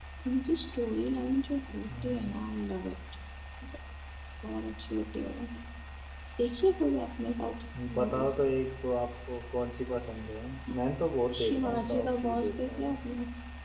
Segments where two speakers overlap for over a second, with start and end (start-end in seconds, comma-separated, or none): 11.4-13.0